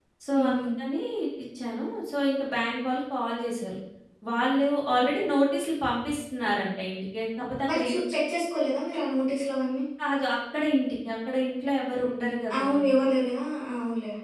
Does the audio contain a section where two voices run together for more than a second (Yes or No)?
No